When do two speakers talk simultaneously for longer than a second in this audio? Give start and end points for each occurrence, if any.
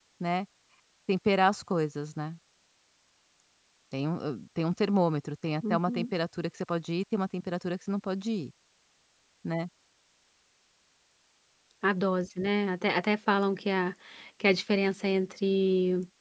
none

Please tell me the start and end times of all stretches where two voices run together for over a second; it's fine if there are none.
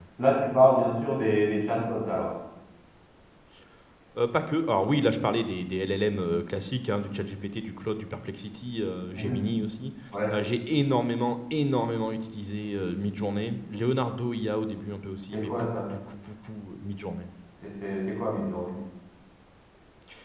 none

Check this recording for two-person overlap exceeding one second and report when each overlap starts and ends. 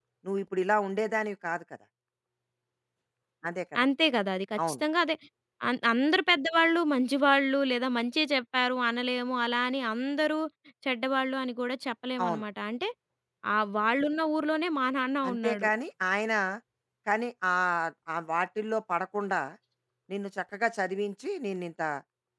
none

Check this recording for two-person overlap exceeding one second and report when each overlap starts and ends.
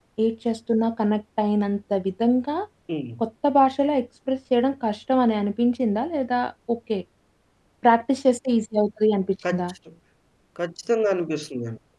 none

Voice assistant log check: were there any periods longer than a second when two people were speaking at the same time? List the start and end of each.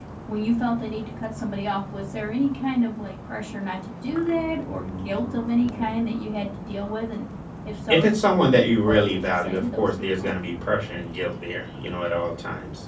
8.9-10.3

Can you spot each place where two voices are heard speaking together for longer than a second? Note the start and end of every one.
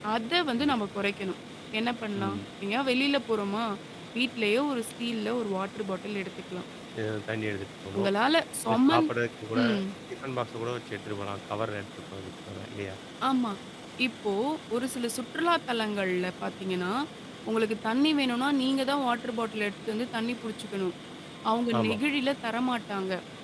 none

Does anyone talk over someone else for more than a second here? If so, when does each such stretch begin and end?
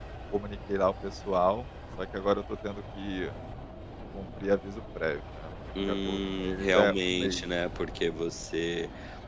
5.8-7.4

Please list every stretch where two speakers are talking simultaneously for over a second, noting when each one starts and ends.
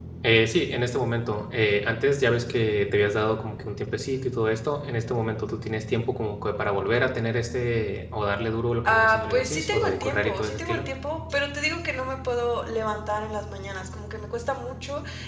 8.8-10.8

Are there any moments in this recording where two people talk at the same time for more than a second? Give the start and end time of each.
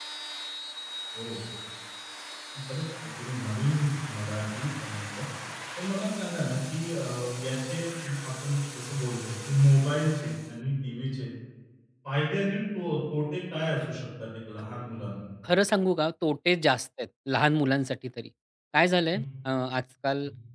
none

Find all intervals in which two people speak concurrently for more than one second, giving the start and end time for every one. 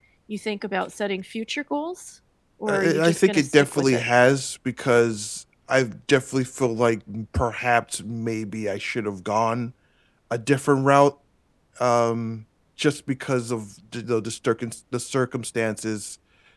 2.7-4.1

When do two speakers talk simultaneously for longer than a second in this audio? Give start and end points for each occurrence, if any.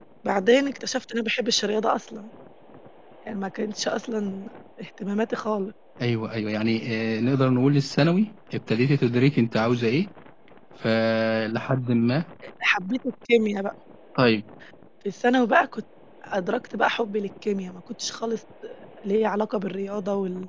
none

